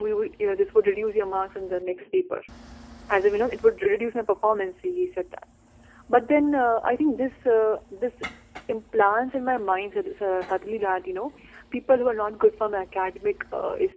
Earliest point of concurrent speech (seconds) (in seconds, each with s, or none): none